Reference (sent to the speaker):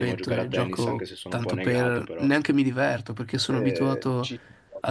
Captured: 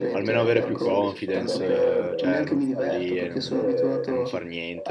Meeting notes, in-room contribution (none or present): present